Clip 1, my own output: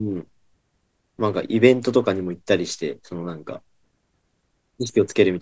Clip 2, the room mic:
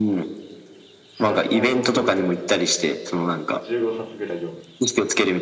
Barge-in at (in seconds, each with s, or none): 1.1 s